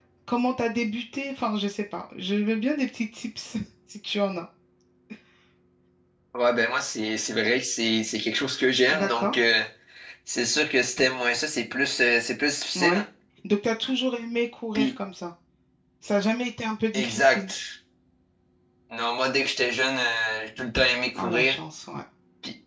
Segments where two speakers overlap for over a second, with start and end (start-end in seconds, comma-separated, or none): none